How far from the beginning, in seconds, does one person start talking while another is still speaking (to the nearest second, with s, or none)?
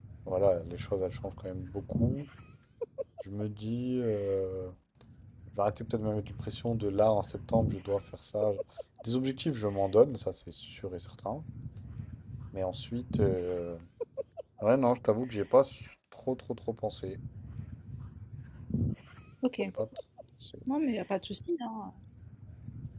none